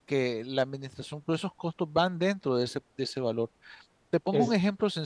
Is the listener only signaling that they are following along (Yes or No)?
No